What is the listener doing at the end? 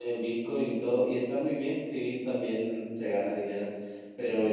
listening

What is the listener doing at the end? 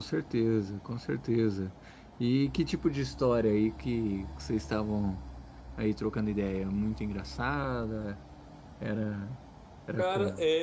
taking over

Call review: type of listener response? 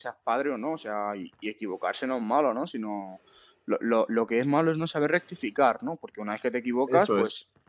listening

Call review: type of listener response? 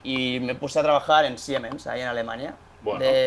listening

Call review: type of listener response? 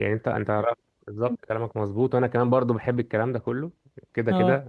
listening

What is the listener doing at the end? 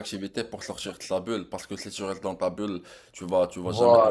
listening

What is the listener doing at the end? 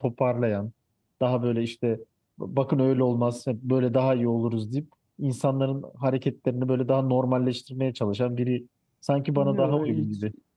taking over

